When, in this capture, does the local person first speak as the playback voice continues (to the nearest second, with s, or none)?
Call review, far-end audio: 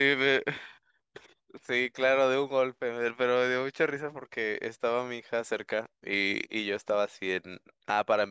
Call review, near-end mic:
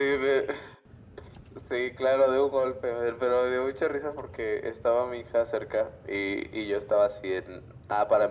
none